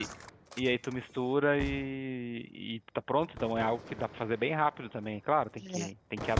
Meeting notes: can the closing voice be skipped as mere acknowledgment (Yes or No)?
Yes